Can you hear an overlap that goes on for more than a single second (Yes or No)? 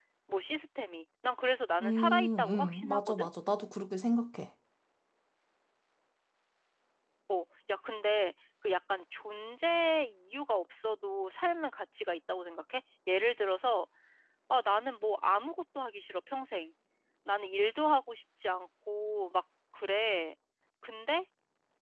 Yes